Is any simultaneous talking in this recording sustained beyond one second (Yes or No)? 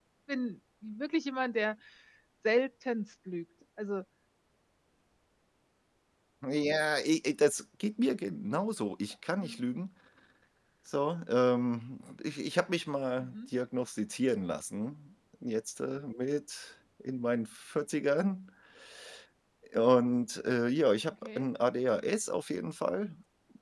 No